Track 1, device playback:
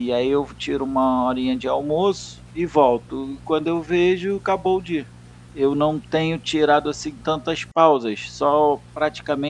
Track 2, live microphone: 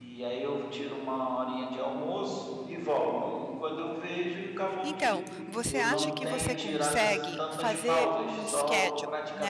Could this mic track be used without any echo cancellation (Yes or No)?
No